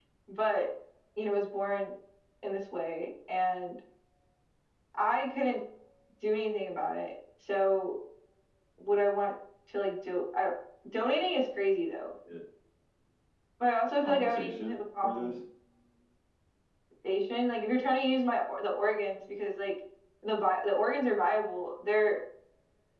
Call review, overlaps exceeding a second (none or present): present